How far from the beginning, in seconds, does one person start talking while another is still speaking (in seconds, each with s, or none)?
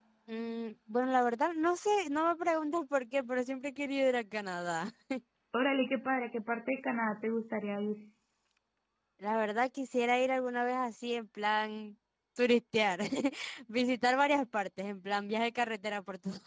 none